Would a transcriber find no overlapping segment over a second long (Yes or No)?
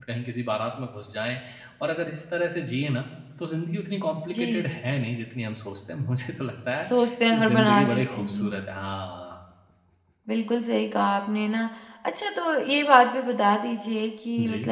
No